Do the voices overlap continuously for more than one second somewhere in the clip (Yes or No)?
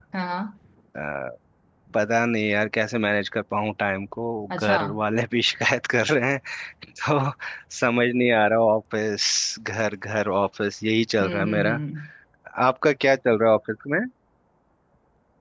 No